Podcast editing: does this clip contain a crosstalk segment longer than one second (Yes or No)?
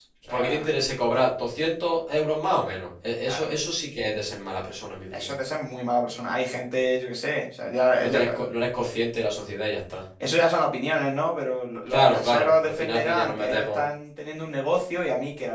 Yes